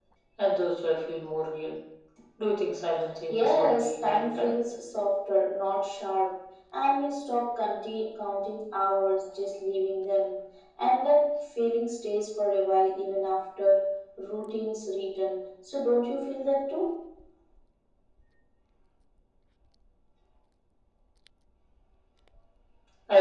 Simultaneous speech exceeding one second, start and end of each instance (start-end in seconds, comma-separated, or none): 3.3-4.5